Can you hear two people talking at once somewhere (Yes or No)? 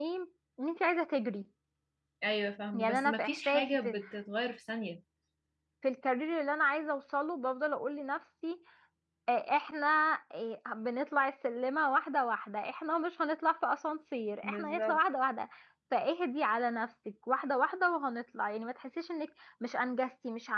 Yes